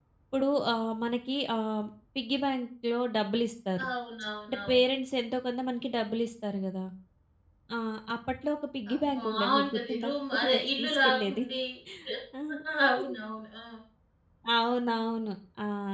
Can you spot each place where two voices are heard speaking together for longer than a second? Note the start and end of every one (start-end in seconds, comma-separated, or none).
8.9-11.4